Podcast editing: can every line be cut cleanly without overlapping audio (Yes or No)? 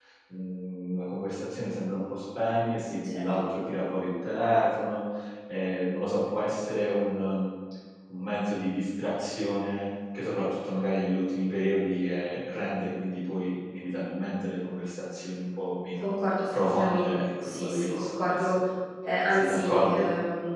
No